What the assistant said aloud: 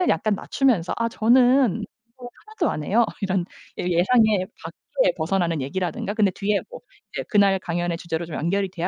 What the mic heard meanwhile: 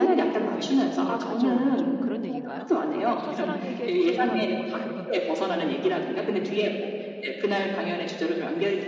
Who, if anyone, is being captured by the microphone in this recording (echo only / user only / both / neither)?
both